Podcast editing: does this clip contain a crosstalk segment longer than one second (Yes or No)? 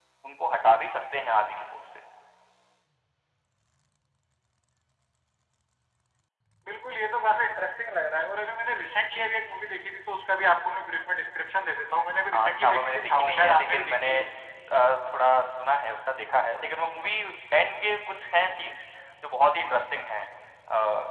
Yes